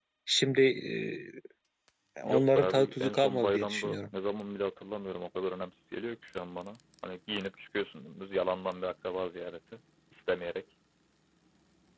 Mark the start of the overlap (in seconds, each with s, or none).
2.3 s